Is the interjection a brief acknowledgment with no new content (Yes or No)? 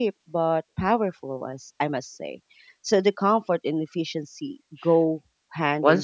No